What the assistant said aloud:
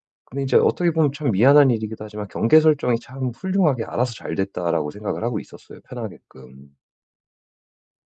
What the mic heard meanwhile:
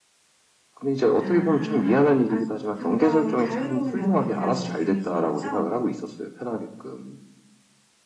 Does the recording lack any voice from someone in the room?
No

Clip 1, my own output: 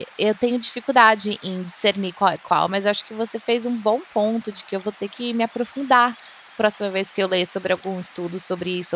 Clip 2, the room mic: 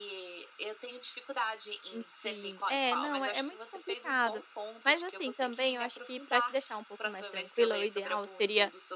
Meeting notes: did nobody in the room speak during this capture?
No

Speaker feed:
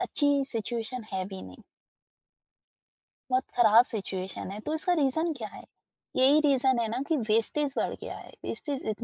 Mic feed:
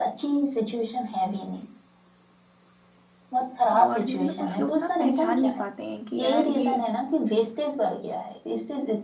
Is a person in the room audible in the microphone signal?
Yes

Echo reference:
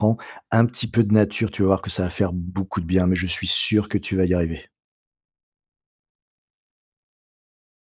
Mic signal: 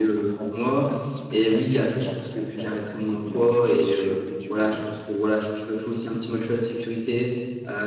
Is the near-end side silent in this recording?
No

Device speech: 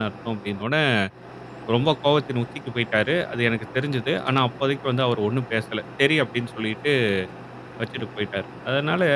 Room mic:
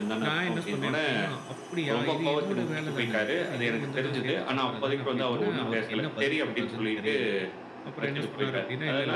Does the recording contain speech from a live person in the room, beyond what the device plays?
Yes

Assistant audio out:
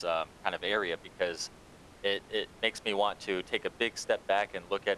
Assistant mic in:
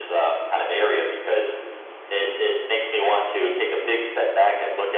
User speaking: No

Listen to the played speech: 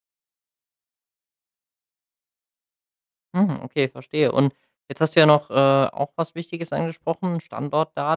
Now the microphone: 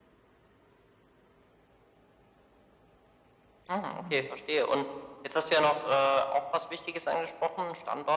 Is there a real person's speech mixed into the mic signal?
Yes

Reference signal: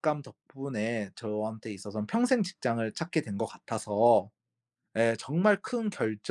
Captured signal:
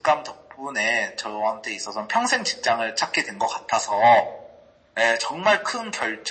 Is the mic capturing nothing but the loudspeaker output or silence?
Yes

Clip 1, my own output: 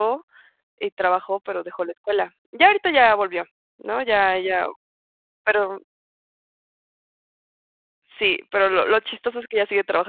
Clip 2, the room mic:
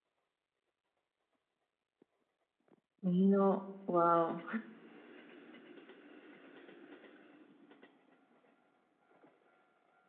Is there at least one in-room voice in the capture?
Yes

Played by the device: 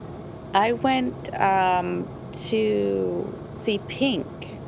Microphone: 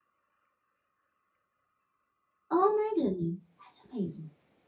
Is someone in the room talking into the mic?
Yes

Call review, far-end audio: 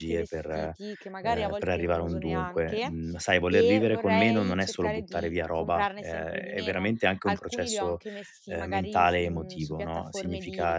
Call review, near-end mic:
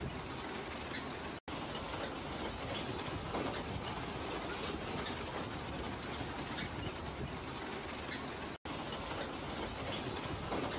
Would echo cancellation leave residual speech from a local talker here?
No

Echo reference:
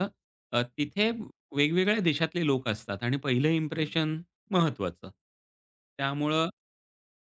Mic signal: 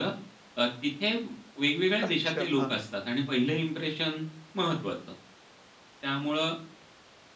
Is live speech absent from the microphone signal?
No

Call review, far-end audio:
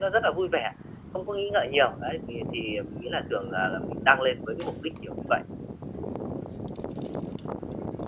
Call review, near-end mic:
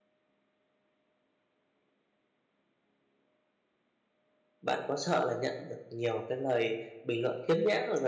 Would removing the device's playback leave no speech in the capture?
No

